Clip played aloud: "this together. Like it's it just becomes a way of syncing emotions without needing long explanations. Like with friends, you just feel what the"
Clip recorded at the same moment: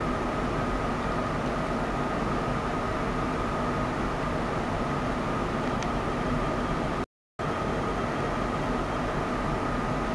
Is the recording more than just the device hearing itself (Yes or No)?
No